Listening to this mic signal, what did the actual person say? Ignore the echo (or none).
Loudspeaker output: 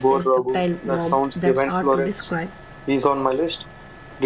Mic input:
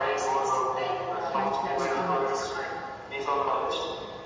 tranquility in it,